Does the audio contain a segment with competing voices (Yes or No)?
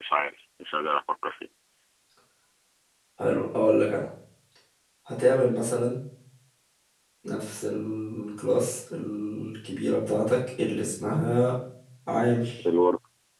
No